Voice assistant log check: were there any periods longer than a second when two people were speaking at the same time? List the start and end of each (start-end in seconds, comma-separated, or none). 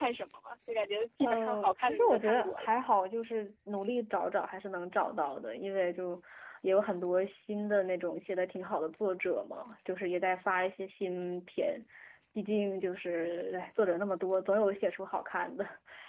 1.2-2.7